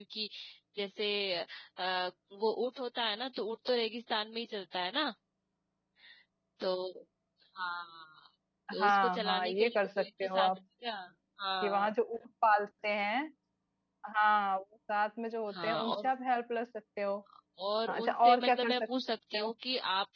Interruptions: present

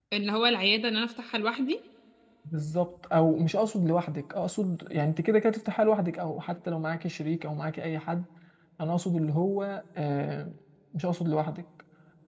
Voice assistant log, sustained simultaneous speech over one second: none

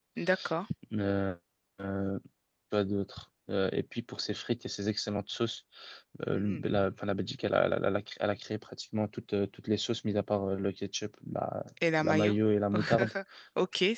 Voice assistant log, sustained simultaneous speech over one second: none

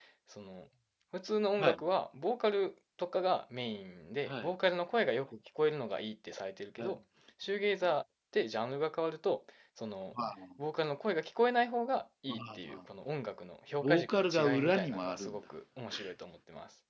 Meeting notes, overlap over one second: present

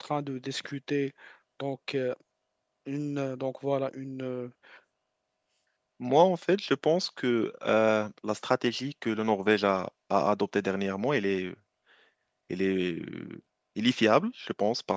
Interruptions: none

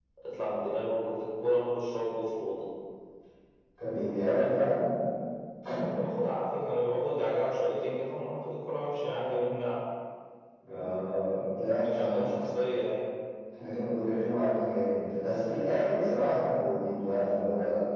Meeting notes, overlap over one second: none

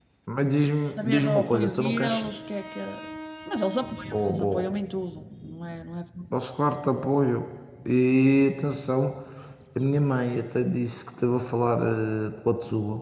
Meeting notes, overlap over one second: present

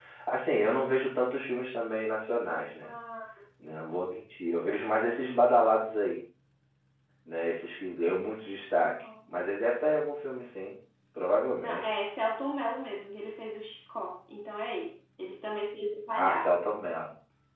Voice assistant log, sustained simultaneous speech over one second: none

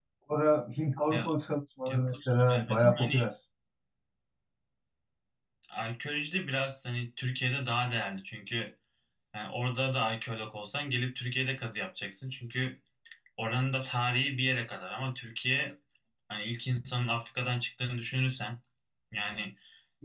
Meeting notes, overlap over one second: present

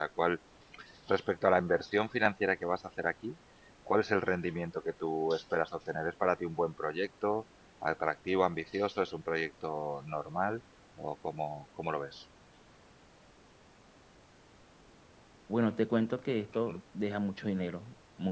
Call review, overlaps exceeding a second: none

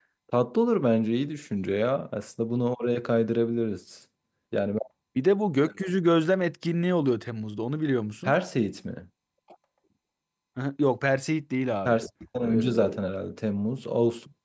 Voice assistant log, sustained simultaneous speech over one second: none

